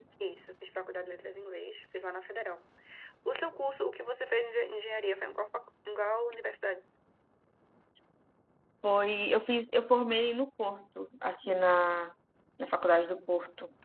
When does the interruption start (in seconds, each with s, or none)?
none